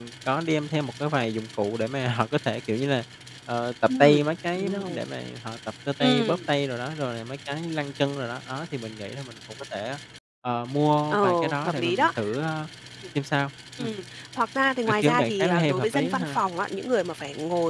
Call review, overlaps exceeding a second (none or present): present